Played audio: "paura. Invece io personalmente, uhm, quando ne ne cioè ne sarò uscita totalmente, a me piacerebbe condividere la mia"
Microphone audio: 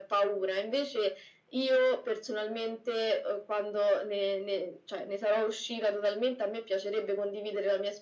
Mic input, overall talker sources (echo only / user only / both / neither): echo only